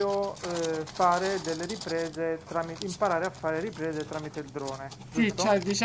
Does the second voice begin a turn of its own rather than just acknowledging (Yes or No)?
Yes